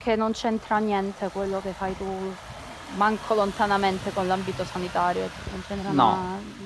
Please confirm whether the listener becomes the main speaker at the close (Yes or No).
Yes